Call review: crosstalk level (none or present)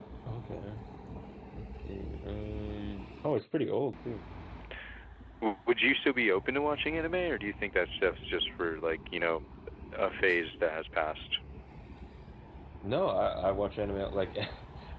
none